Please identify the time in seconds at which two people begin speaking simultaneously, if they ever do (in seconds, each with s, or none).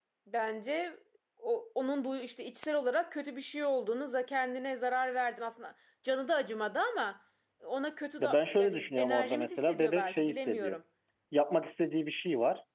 8.2 s